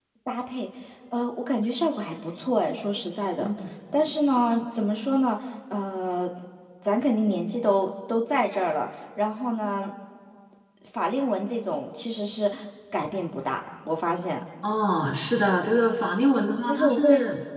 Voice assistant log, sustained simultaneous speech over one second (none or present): none